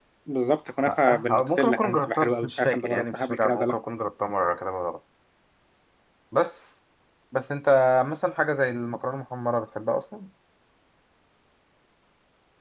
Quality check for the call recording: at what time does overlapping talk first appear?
1 s

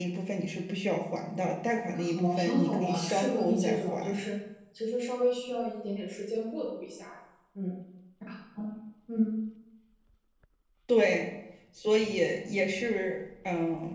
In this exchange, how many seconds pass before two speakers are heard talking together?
2 s

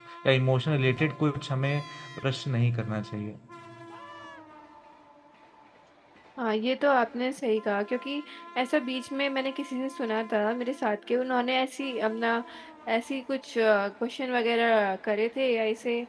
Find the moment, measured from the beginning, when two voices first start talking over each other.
none

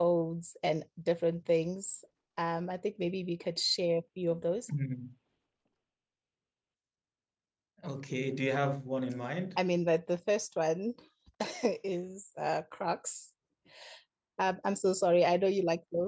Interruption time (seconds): none

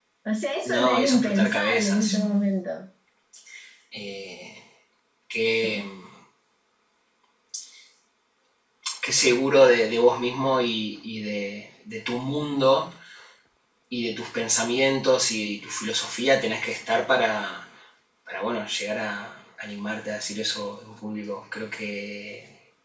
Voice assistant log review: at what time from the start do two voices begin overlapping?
1 s

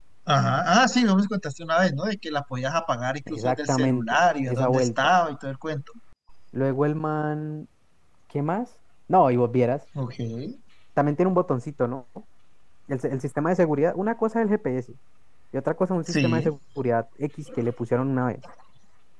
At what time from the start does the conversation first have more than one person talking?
3 s

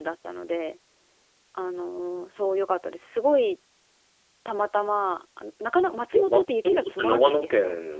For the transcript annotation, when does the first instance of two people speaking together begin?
6 s

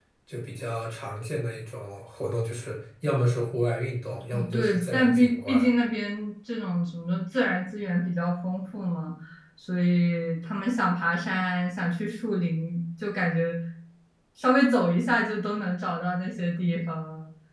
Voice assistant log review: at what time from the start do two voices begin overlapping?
4 s

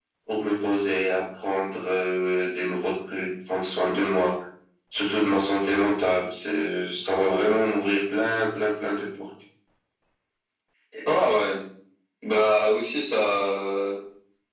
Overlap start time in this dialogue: none

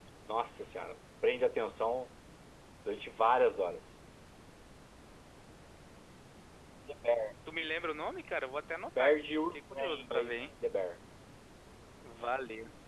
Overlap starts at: 9 s

